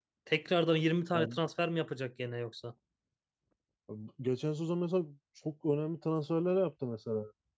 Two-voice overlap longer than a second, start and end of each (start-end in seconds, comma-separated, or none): none